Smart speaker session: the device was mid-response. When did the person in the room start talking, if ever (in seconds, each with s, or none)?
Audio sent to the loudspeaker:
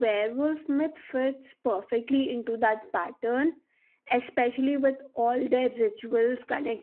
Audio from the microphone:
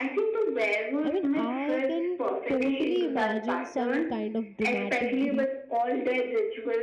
1.0 s